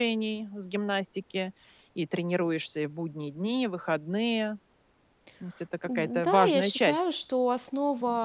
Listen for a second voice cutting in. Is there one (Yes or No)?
Yes